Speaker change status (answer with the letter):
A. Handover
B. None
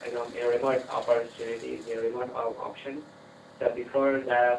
B